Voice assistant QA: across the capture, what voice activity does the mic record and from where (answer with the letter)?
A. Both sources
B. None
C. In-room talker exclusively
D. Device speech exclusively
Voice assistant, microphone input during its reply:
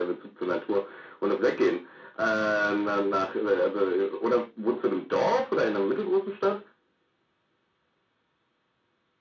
D